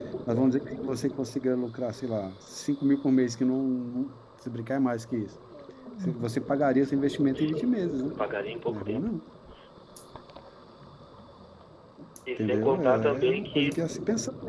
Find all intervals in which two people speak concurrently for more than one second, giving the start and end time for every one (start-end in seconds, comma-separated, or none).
12.4-13.8